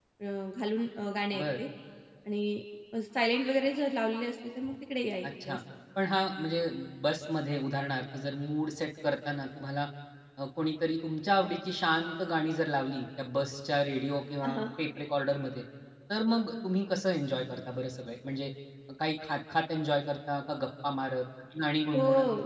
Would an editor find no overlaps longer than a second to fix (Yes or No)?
Yes